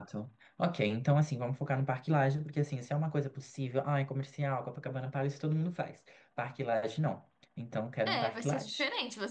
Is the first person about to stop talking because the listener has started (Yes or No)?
Yes